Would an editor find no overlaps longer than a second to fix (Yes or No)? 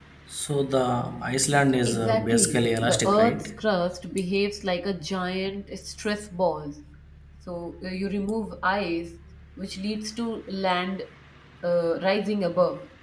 No